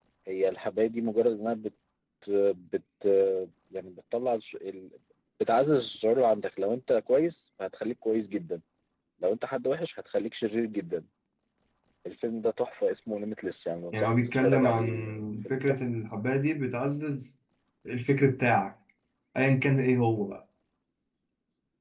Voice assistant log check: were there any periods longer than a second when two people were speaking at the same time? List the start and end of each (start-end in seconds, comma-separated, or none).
13.9-15.8